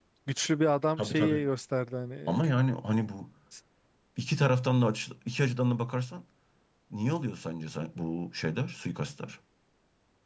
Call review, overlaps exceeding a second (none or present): none